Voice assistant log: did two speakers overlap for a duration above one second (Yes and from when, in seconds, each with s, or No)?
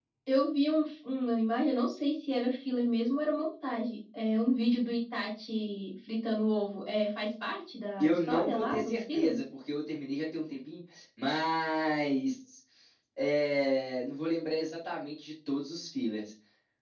Yes, from 8.0 s